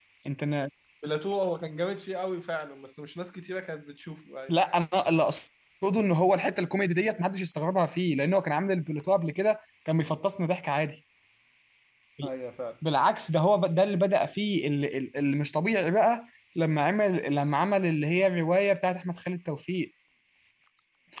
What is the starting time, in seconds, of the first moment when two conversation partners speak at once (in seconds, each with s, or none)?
none